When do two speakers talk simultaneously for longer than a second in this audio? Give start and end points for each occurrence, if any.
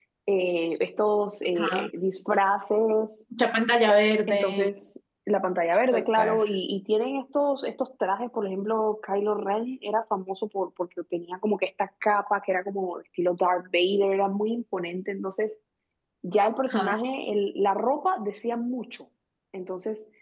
none

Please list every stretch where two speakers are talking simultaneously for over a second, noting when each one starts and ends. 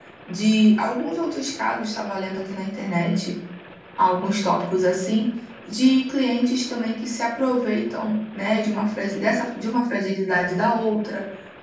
none

